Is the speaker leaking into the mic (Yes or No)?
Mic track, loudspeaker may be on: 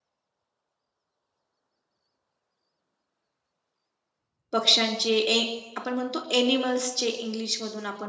No